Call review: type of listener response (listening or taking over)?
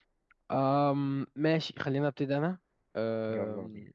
listening